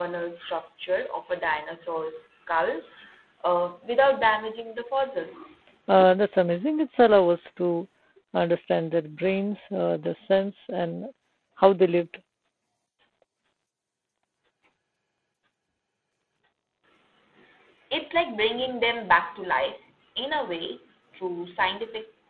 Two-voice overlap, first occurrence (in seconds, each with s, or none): none